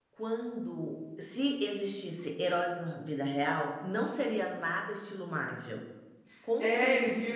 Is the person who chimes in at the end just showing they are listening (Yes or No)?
No